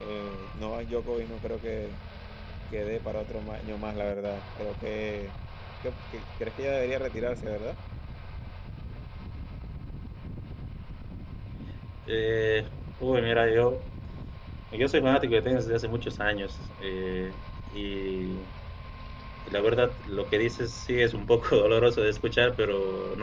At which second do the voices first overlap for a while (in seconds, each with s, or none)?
none